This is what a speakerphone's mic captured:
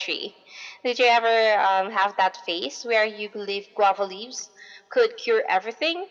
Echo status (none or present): present